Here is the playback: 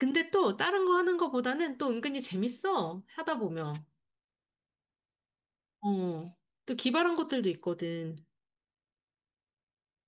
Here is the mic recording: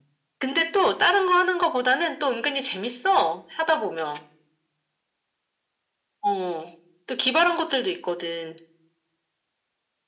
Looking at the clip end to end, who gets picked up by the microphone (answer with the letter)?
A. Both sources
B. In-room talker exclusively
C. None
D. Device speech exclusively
D